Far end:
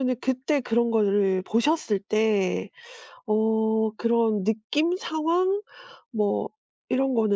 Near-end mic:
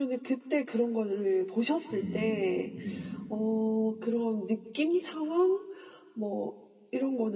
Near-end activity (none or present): present